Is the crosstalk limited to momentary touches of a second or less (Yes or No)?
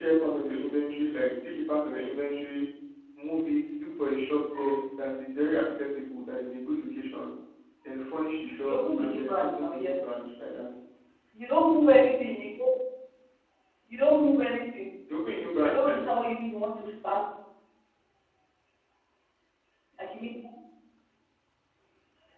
No